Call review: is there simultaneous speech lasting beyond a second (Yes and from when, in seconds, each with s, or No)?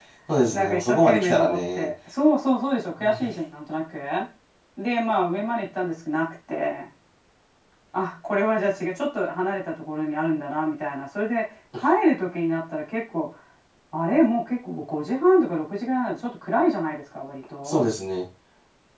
Yes, from 0.5 s